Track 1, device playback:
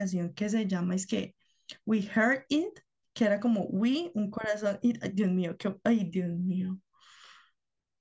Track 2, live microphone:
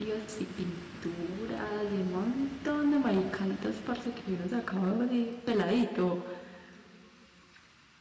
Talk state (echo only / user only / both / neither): user only